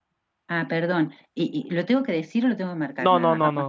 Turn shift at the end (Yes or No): Yes